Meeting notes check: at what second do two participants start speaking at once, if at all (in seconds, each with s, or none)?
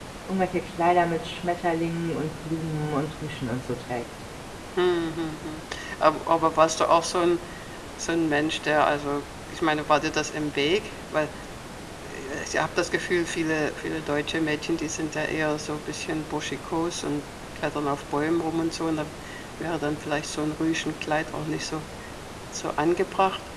none